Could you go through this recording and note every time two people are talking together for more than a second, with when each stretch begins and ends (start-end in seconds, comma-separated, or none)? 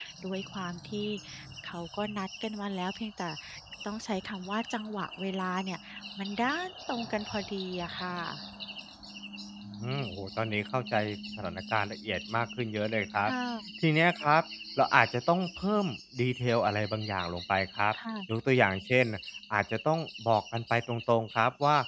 none